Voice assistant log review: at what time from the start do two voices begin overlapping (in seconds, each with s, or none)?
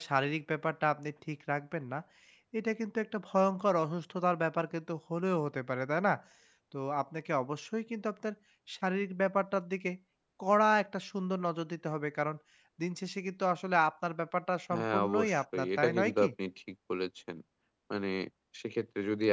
14.7 s